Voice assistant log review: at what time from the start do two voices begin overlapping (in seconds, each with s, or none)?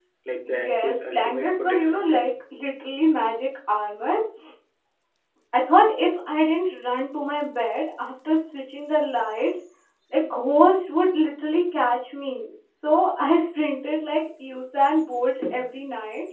0.7 s